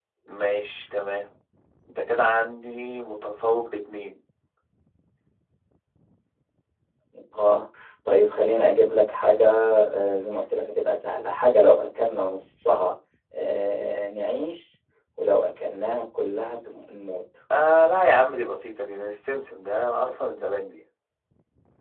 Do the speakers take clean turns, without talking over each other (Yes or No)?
Yes